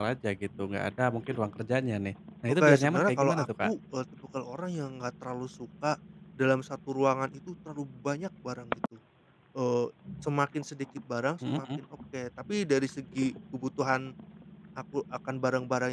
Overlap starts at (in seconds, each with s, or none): 2.5 s